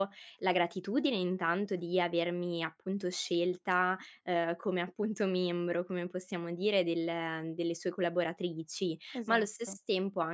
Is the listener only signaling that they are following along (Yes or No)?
Yes